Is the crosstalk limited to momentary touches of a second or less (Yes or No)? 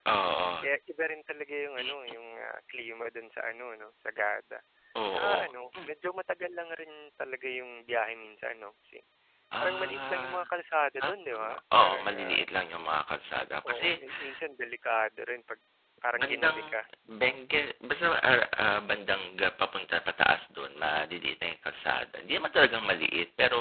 No